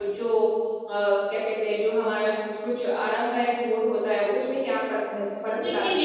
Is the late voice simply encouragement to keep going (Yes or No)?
No